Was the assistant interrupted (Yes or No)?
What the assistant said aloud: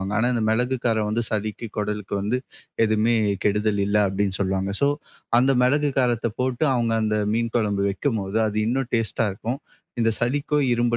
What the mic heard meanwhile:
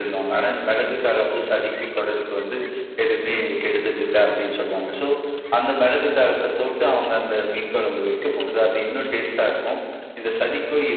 No